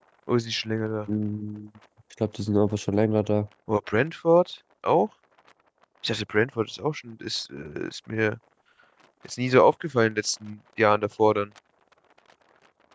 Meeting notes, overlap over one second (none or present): none